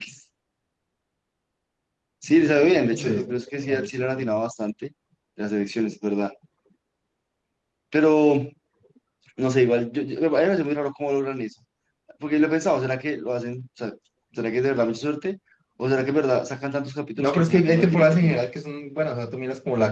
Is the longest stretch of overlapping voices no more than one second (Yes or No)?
No